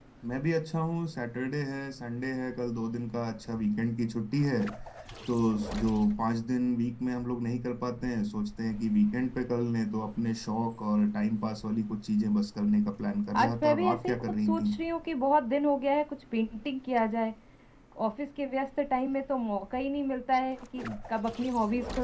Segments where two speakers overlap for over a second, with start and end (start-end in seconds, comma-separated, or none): 13.4-14.8